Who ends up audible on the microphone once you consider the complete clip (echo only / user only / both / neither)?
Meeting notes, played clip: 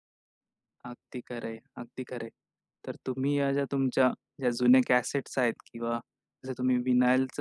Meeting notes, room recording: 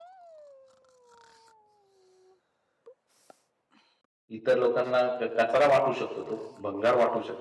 user only